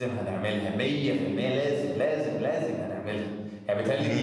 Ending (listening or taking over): listening